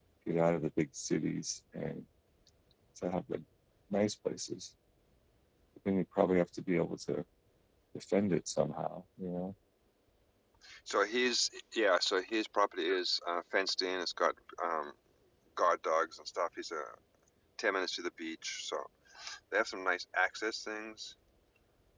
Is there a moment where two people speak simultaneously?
No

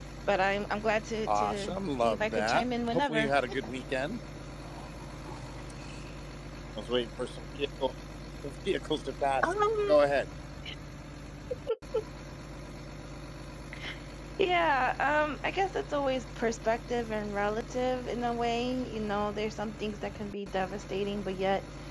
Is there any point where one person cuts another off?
Yes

